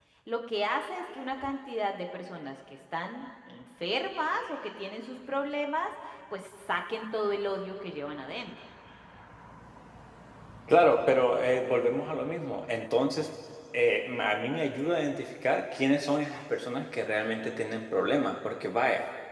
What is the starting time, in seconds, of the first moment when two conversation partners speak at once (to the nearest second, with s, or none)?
none